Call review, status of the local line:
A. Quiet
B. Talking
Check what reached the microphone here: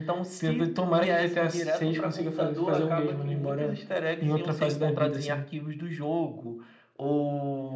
A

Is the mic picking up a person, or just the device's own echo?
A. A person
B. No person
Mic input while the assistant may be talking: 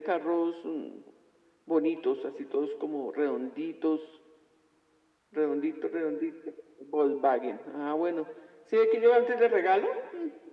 B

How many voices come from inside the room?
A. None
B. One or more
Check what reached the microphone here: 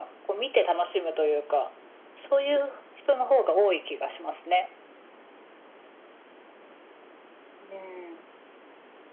A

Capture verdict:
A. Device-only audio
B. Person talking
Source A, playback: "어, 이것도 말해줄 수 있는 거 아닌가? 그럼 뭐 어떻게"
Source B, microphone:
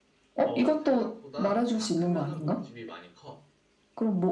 B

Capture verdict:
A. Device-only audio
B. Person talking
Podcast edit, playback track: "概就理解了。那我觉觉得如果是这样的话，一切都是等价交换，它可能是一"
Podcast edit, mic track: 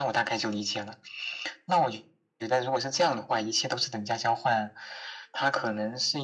A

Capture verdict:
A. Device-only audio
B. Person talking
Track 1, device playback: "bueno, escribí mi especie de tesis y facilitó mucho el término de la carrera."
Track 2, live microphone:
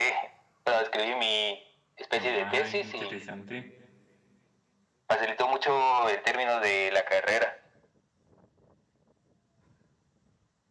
B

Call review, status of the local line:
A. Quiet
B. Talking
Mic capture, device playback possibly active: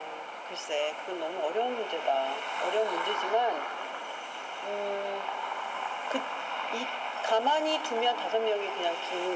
A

